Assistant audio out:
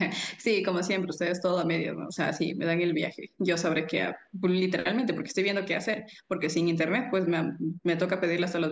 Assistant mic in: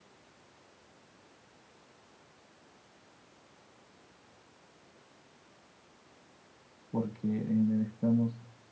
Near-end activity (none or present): present